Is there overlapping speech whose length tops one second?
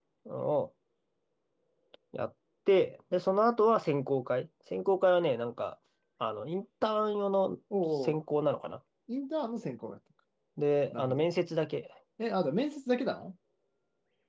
No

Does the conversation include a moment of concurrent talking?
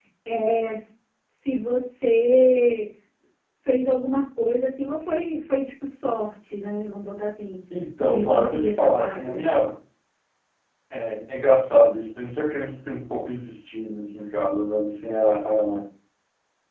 Yes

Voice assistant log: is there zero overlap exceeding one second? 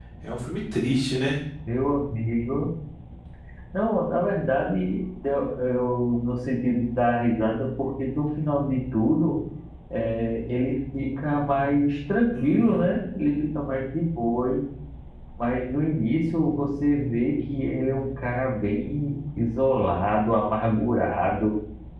Yes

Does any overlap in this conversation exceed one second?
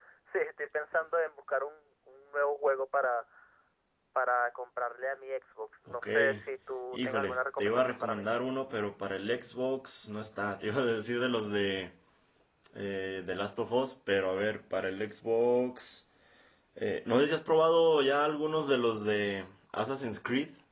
Yes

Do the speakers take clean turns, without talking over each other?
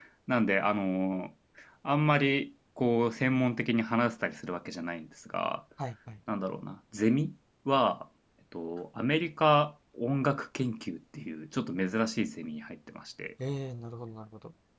Yes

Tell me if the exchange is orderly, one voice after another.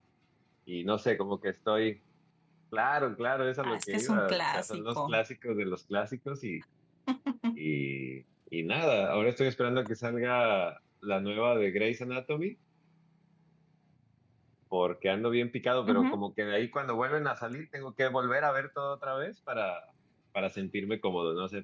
No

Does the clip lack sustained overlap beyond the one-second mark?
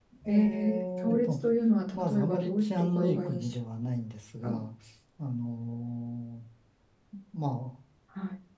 No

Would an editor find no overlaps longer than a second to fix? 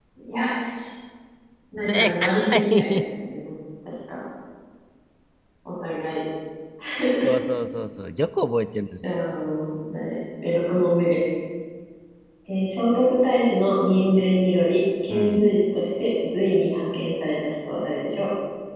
No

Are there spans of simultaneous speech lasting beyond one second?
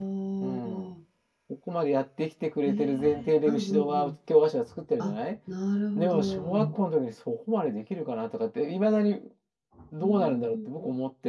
Yes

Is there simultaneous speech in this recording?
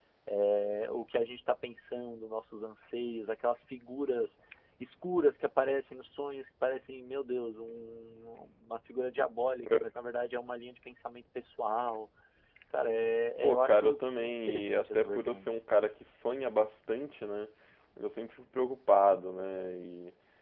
Yes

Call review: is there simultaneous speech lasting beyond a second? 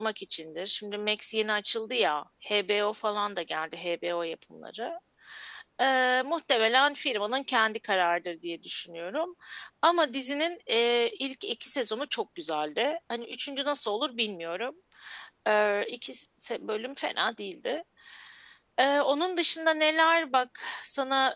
No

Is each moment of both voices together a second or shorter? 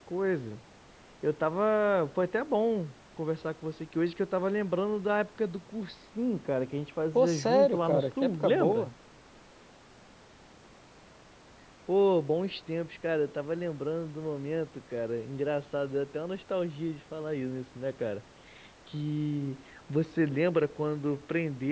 No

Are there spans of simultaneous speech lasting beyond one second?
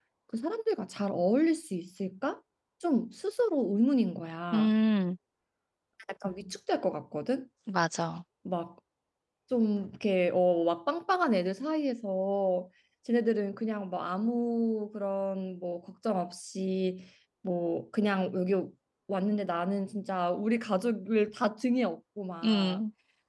No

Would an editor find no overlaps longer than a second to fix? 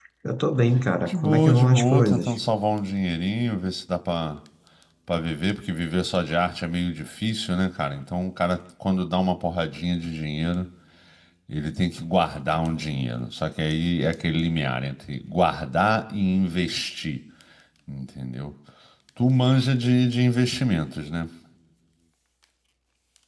No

